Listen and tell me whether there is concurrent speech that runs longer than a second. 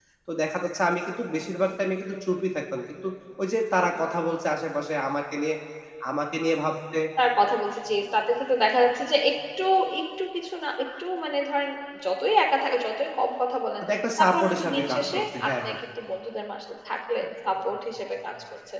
Yes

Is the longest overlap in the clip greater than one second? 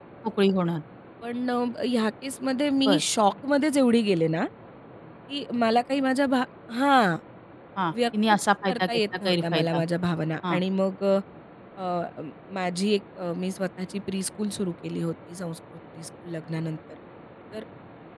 Yes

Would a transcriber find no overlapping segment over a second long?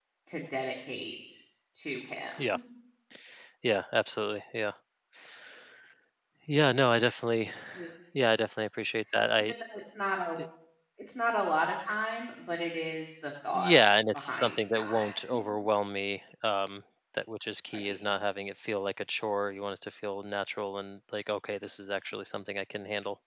No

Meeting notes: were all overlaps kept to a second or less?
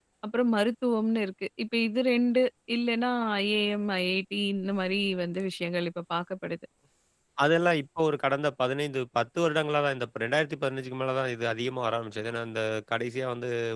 Yes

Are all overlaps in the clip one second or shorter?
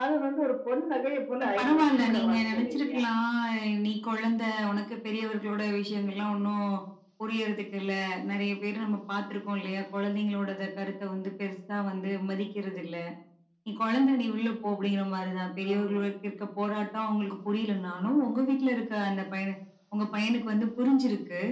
No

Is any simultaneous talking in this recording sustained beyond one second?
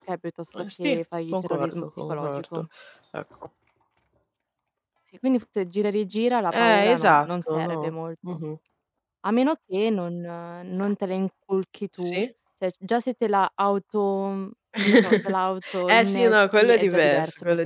Yes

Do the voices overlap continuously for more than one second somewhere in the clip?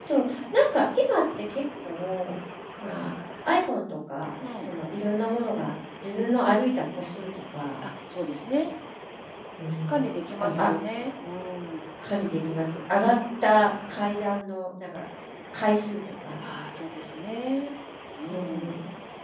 No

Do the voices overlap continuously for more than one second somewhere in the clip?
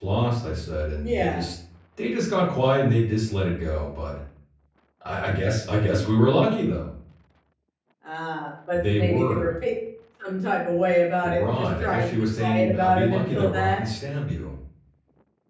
Yes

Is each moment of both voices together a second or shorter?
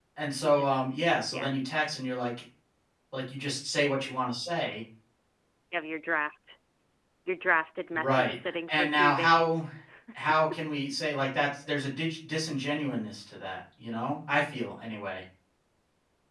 No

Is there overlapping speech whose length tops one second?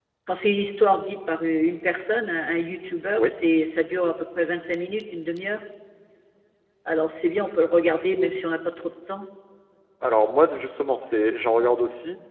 No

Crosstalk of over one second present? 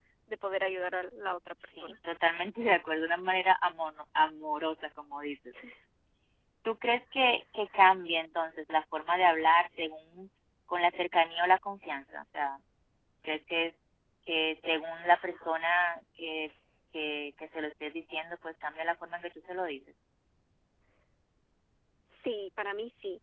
No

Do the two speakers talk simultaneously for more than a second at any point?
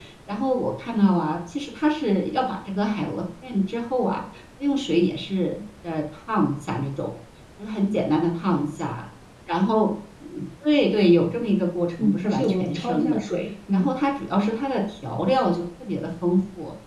Yes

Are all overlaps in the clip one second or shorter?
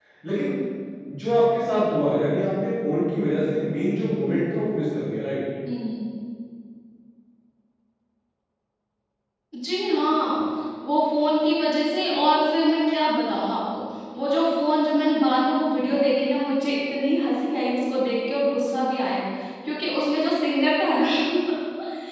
Yes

